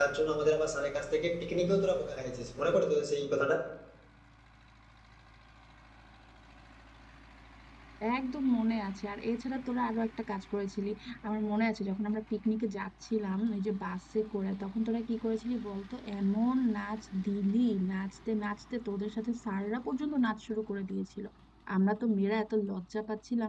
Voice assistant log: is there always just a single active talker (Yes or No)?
Yes